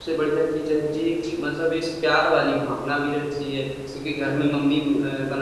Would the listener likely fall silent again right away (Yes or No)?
Yes